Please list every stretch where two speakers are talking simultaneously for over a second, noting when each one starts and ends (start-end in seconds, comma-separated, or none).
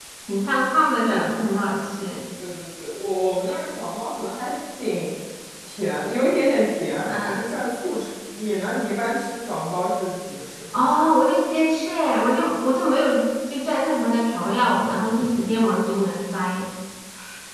none